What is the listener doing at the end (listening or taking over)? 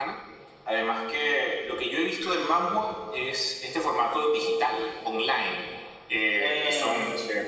listening